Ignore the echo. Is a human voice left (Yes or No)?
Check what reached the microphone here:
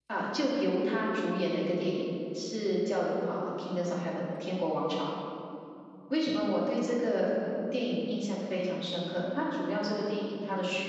No